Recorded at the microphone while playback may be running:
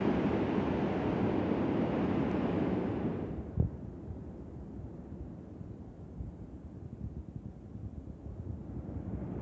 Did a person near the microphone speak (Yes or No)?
No